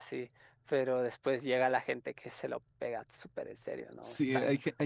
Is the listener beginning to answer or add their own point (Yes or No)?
Yes